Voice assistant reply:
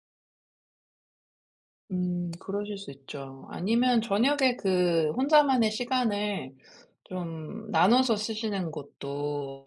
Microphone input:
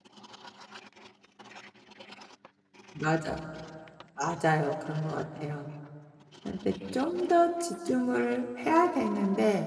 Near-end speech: present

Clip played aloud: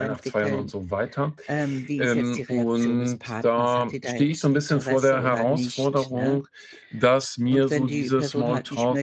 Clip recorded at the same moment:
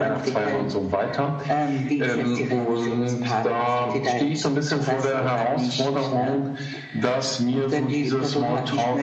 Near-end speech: none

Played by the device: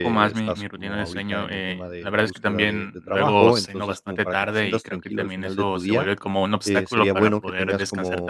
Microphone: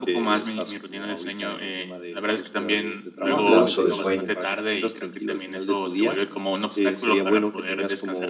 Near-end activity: present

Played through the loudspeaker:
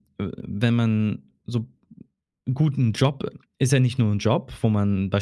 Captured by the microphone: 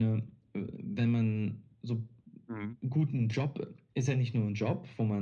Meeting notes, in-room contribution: present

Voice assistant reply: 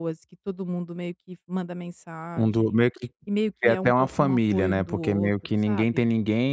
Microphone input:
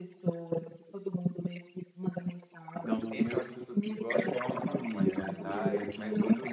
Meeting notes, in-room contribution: present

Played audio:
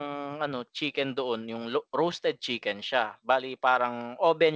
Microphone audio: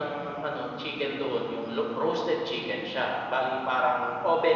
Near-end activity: none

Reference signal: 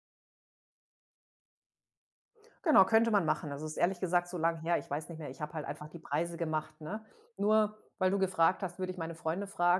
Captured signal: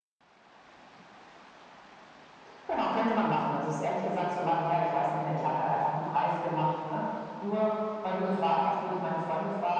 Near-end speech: none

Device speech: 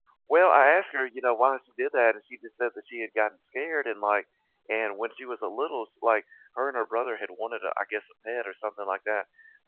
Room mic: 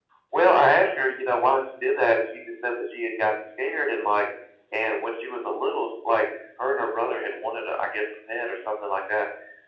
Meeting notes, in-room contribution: none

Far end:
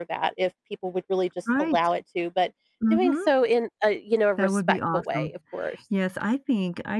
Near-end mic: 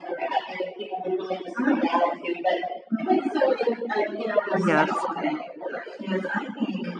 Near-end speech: present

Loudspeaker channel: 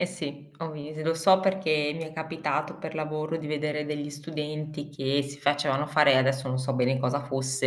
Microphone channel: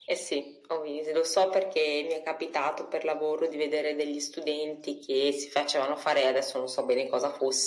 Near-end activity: none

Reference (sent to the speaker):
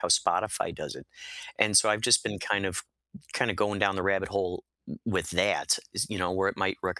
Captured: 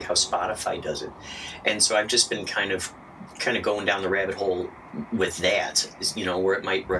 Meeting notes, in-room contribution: none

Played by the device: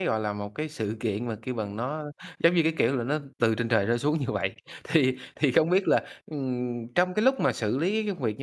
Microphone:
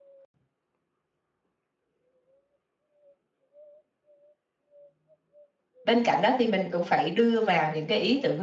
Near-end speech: present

